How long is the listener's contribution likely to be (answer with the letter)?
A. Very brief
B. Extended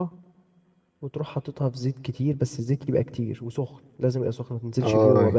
B